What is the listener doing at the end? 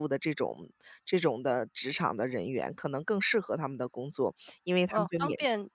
taking over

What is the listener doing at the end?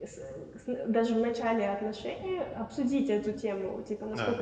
listening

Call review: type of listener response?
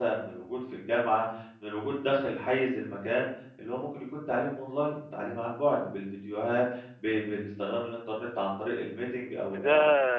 taking over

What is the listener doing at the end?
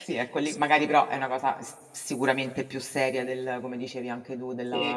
taking over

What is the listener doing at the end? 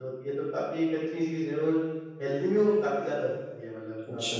listening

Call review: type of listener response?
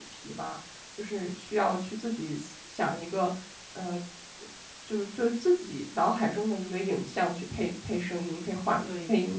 taking over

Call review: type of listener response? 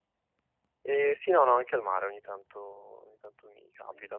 listening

